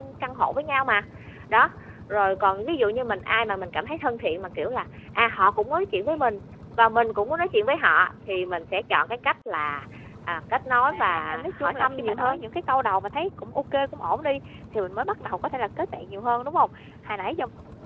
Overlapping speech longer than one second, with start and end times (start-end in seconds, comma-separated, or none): 10.9-12.4